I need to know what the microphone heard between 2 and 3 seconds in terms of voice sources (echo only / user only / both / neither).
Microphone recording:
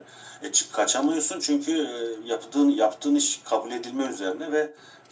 echo only